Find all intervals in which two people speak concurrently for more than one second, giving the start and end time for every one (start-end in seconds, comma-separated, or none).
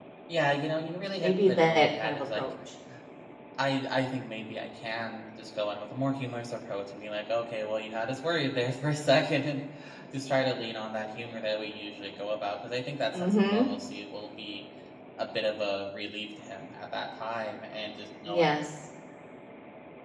1.2-2.4